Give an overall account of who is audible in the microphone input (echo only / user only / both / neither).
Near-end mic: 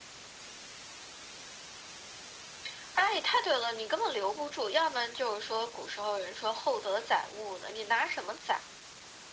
echo only